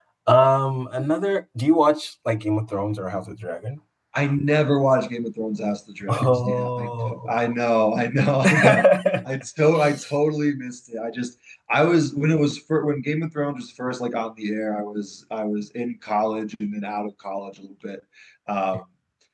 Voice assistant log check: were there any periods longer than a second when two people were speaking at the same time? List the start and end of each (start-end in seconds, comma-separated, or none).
6.1-7.5